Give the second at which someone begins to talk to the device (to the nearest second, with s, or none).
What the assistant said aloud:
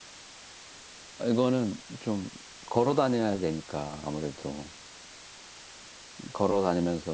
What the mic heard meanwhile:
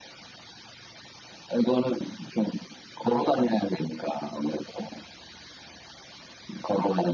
none